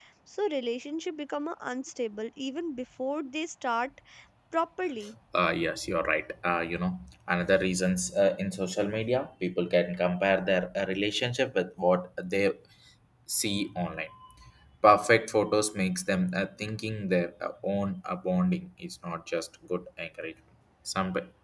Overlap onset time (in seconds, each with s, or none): none